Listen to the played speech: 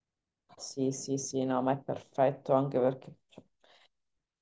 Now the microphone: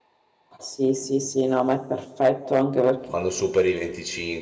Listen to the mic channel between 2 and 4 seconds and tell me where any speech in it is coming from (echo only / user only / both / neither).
both